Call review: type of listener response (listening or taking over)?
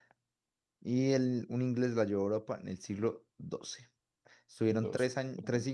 listening